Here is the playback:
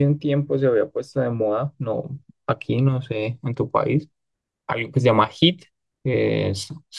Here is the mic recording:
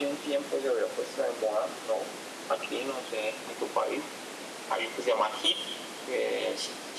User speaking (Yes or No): No